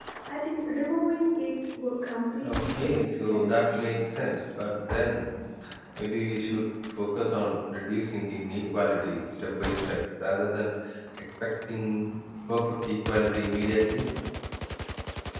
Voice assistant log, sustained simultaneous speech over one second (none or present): present